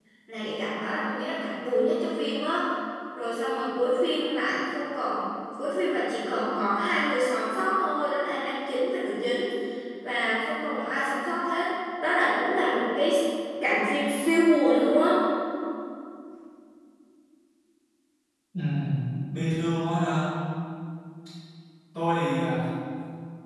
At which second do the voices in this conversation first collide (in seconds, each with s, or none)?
none